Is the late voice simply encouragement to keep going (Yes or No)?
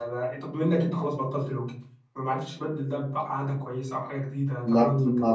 No